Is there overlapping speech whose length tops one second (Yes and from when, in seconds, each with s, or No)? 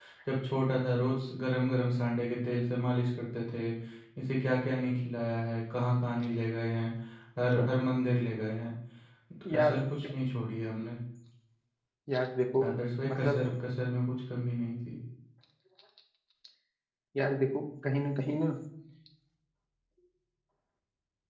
No